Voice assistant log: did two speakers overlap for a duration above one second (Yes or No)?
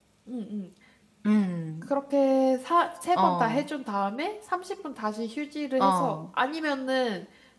No